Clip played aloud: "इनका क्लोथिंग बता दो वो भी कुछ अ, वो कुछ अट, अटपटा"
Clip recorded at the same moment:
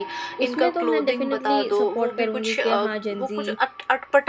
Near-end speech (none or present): present